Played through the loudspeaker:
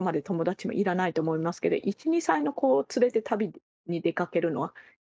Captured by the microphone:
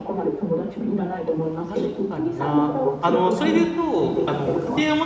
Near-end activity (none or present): present